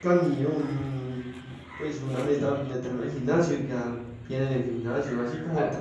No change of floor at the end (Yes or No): Yes